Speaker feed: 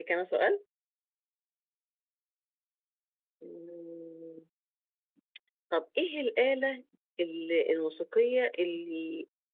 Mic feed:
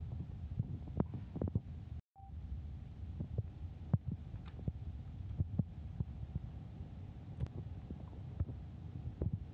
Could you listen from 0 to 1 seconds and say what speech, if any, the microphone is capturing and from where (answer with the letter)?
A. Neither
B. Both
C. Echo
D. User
A